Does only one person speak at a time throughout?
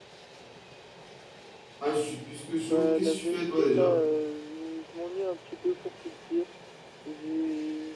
No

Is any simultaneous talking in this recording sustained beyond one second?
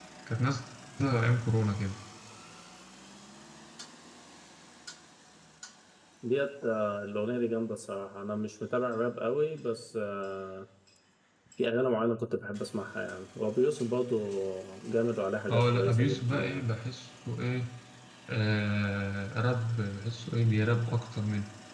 Yes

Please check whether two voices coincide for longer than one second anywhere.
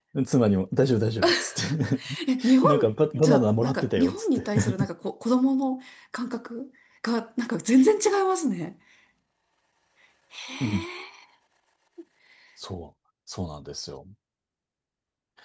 Yes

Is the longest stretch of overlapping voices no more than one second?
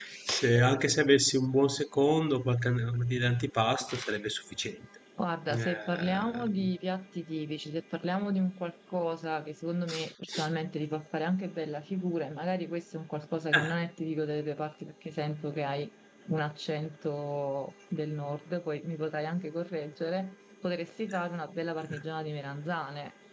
No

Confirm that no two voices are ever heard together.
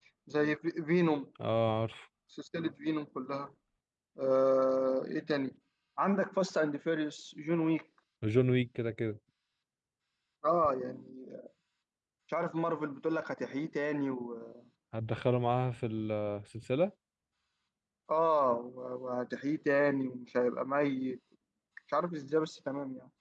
Yes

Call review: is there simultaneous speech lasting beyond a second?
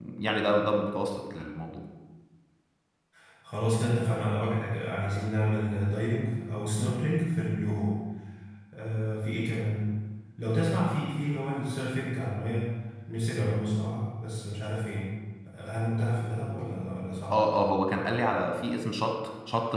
No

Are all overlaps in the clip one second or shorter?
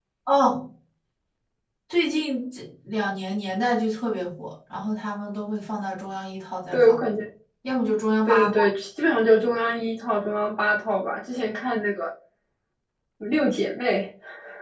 Yes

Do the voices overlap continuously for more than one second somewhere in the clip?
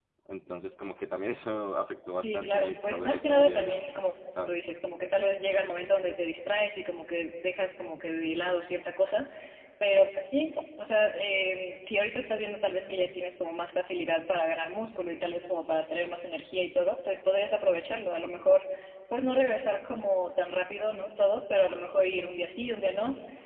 Yes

